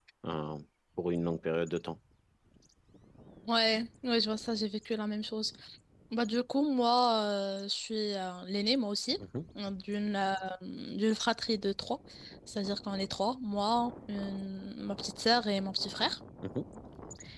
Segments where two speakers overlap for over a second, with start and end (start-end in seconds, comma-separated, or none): none